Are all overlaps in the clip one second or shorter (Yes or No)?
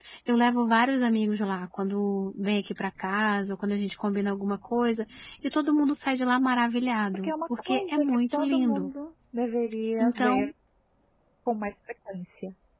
No